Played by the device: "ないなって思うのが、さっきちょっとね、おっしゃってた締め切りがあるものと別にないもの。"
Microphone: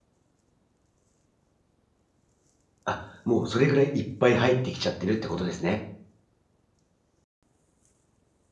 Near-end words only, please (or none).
あ、もうそれぐらいいっぱい入ってきちゃってるってことですね。